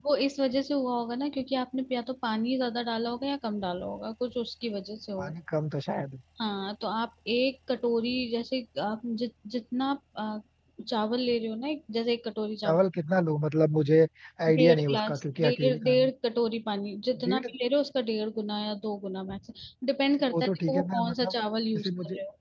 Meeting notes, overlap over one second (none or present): present